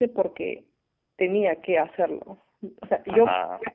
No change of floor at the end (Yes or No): Yes